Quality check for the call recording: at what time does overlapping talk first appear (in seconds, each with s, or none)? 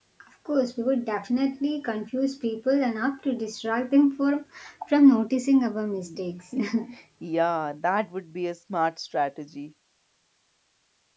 none